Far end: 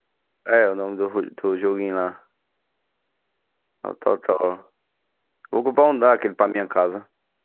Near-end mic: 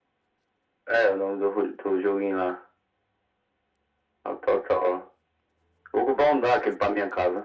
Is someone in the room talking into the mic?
No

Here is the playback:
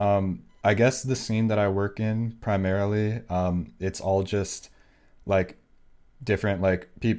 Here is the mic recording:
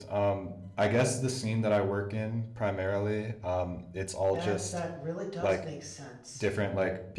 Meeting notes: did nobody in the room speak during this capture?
No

